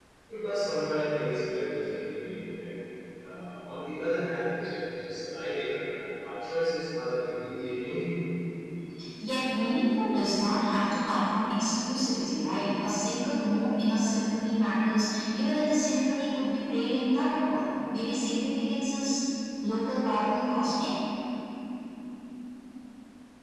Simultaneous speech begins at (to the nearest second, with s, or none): none